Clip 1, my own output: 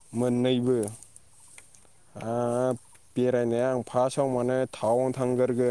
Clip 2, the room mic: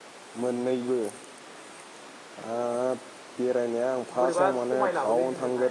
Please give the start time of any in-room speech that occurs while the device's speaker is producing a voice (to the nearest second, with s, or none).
4 s